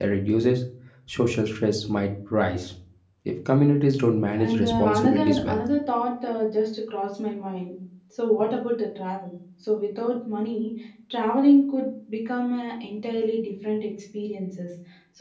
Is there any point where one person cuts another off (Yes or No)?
Yes